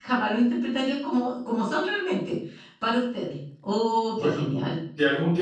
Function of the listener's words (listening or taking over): taking over